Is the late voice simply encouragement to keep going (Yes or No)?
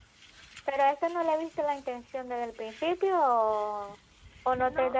Yes